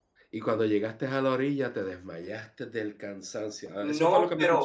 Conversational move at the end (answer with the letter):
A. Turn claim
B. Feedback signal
A